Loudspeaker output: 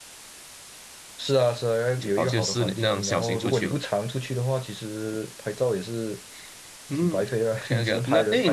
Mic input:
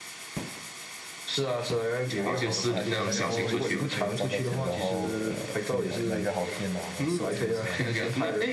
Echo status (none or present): present